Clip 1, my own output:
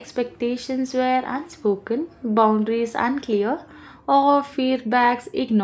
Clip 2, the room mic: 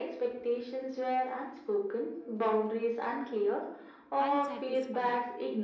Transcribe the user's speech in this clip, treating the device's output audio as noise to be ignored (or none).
unsatisfying.